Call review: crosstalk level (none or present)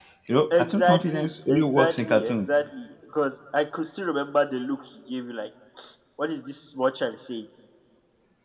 present